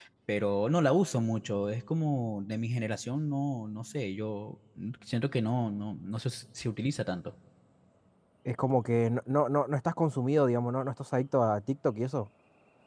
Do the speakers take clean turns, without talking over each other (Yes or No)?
Yes